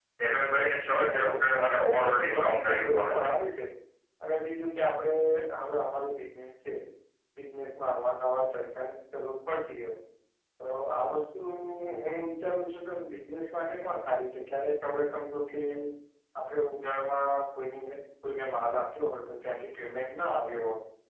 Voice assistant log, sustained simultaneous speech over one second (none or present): present